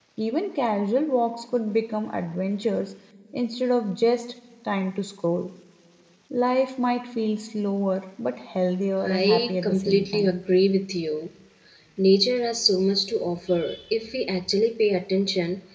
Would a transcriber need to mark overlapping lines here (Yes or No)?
Yes